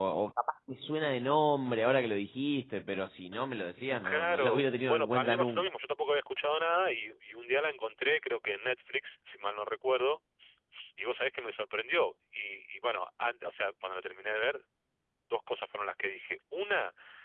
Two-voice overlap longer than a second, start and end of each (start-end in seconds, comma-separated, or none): 4.0-5.7